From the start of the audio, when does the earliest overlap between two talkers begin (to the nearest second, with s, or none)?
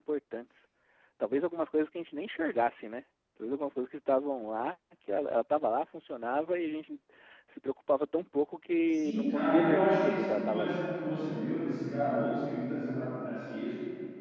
9 s